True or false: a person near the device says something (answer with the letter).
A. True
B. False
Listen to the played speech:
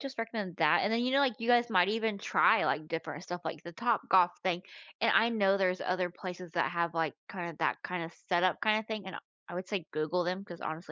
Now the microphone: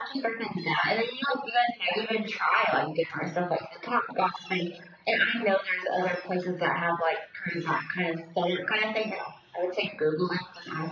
B